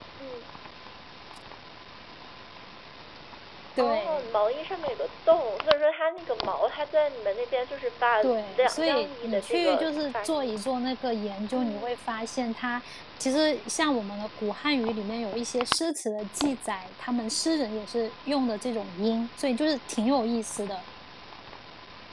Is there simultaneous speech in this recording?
Yes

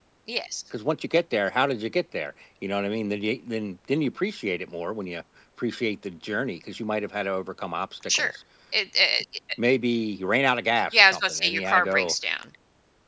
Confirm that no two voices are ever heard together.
No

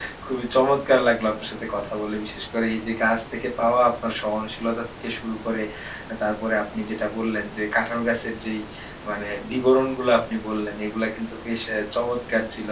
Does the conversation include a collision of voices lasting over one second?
No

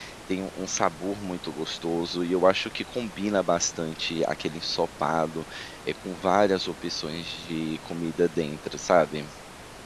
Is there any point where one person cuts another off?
No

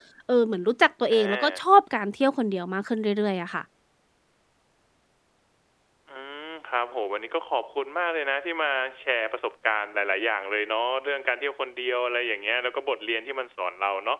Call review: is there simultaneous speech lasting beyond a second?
No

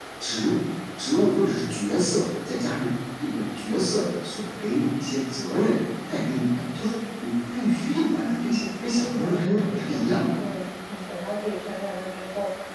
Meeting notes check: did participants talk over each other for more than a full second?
Yes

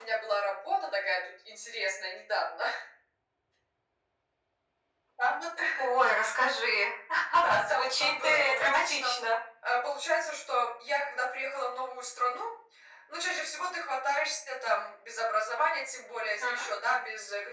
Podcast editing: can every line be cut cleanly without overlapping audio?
No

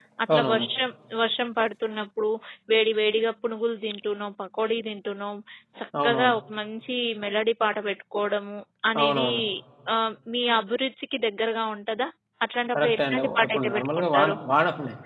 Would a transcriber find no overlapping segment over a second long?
No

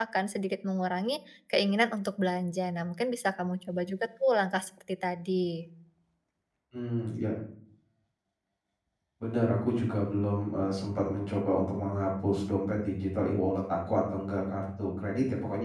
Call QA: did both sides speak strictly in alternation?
Yes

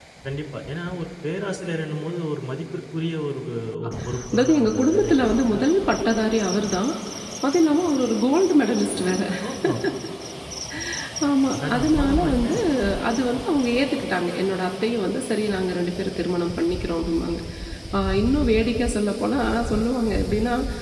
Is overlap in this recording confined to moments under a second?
No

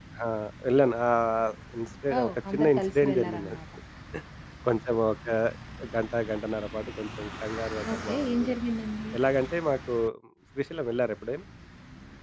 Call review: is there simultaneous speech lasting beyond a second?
Yes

